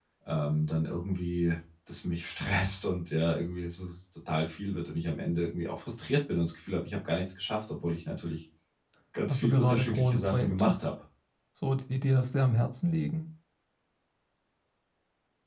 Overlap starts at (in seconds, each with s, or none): 9.3 s